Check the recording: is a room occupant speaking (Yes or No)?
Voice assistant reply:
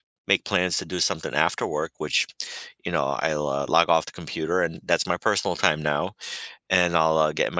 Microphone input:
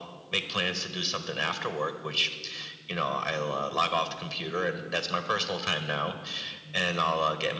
No